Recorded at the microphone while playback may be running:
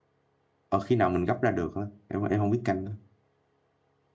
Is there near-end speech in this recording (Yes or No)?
Yes